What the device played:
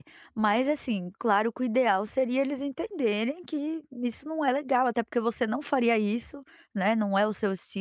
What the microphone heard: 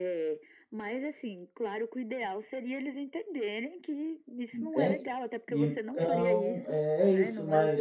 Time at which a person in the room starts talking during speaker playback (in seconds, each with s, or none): 4.5 s